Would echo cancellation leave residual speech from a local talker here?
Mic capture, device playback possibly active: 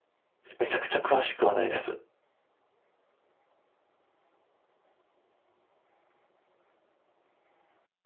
Yes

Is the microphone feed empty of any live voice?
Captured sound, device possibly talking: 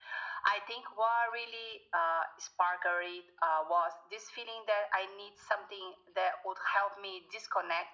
Yes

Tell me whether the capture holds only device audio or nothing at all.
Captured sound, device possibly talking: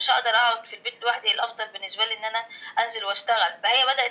Yes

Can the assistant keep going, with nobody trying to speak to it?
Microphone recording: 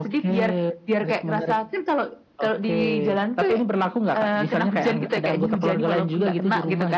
Yes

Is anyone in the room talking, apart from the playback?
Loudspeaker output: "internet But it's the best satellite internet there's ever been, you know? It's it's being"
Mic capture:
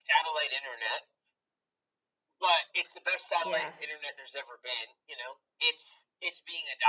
Yes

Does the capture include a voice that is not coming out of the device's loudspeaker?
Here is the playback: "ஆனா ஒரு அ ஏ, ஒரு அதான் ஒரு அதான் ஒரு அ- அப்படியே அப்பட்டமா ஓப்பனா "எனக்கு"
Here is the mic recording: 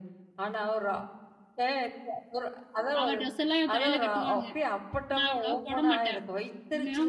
Yes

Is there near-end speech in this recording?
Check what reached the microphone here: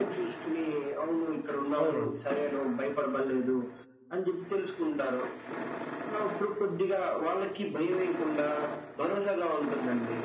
Yes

